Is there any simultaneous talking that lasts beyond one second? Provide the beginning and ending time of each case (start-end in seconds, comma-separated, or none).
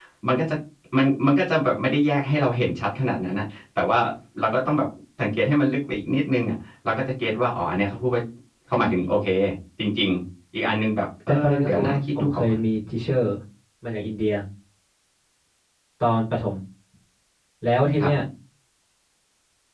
11.3-12.6